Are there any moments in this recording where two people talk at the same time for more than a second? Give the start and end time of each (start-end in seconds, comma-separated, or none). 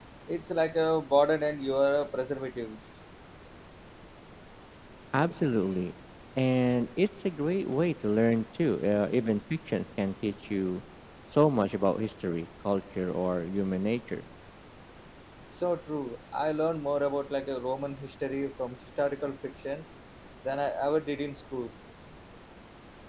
none